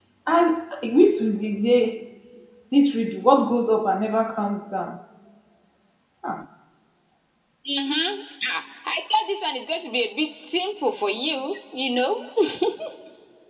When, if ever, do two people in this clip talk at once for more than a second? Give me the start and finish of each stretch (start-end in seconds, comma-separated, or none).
none